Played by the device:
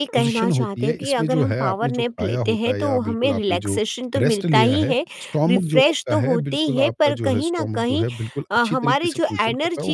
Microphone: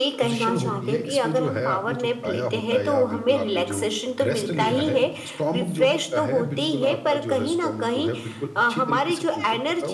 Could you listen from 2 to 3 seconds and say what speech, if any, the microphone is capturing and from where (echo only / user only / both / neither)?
echo only